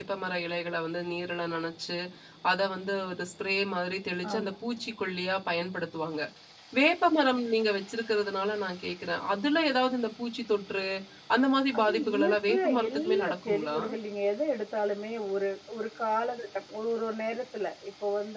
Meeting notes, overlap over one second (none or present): present